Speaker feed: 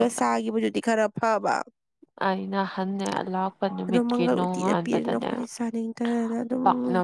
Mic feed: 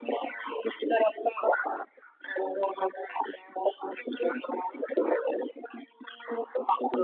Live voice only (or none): none